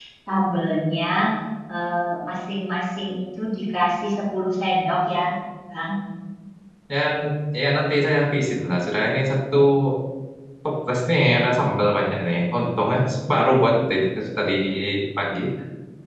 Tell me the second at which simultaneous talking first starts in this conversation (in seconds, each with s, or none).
none